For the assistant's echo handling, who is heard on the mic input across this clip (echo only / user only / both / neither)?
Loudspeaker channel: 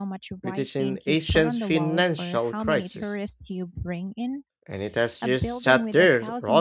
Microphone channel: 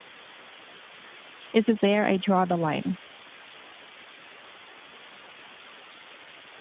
user only